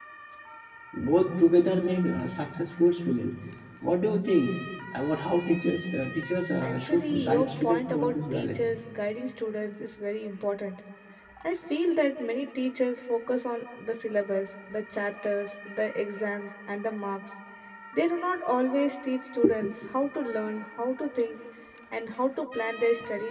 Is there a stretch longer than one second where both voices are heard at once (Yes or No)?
Yes